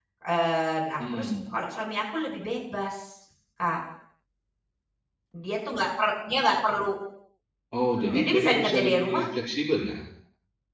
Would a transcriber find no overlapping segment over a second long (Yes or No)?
No